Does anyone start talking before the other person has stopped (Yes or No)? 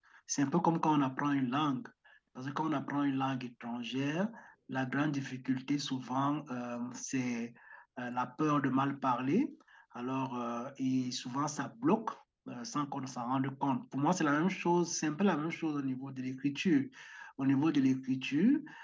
No